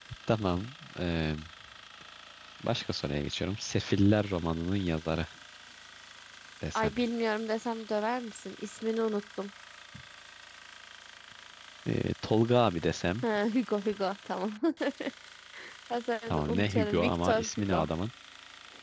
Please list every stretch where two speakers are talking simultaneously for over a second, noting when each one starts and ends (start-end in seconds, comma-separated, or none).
16.3-17.9